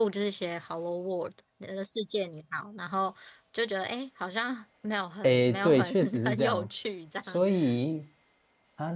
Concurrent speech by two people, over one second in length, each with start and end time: 5.2-6.7

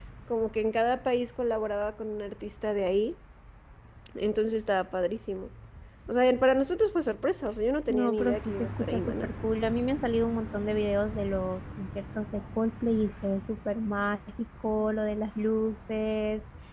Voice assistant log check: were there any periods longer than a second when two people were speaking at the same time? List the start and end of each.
7.9-9.3

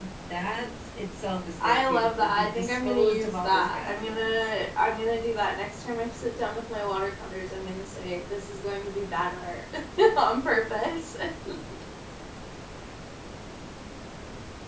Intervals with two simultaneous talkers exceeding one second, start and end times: 1.6-4.5

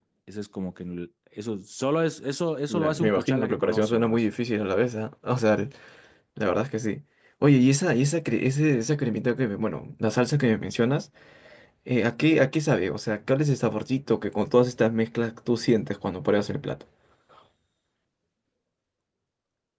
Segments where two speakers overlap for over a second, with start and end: 2.7-4.2

